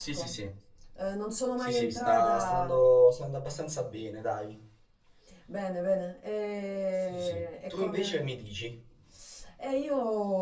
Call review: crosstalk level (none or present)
present